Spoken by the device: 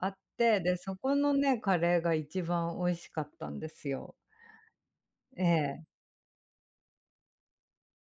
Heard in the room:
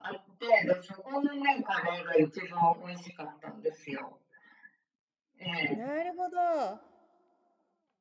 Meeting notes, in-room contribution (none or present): present